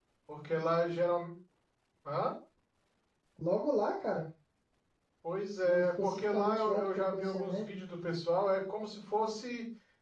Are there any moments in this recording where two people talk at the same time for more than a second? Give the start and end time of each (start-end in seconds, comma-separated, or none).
5.6-7.8